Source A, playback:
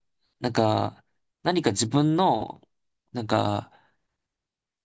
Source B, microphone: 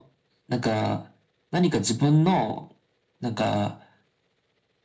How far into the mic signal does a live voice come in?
none

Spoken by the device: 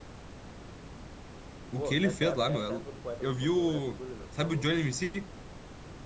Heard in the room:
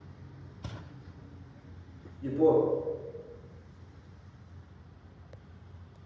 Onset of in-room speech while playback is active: 2.2 s

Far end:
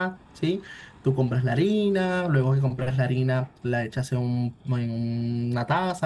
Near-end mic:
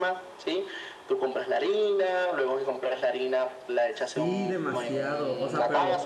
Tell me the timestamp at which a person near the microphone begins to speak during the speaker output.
3.9 s

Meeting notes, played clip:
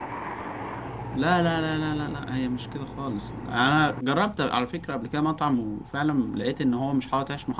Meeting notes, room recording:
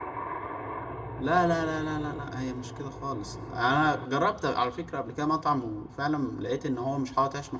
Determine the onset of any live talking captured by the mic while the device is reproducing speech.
none

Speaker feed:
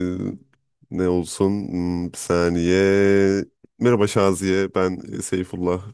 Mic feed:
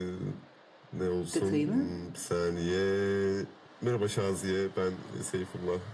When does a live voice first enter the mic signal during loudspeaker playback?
1.3 s

